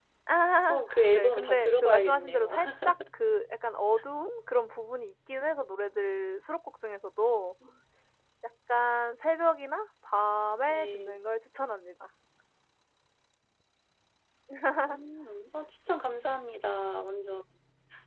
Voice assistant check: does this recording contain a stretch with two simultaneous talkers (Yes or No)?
Yes